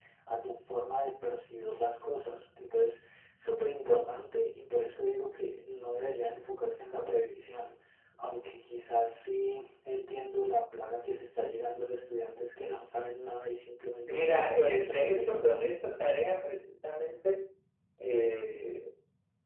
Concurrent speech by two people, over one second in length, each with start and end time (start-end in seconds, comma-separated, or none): 14.1-15.3